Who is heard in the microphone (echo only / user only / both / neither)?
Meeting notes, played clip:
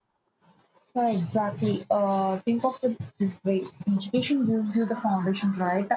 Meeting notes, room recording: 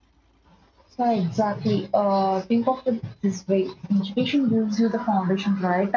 echo only